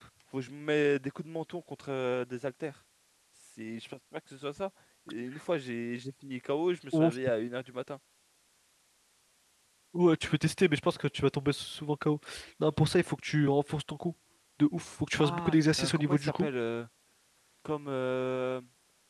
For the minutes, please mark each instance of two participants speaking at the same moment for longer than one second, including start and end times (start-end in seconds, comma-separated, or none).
15.2-16.5